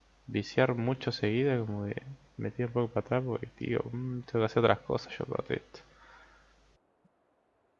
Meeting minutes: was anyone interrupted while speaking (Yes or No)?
No